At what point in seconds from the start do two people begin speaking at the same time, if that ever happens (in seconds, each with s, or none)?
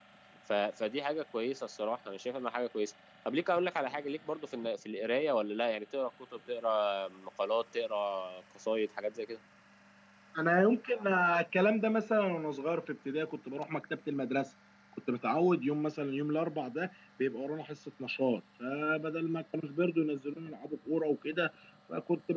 none